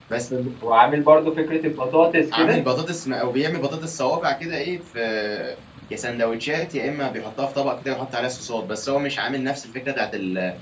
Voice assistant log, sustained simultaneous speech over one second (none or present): none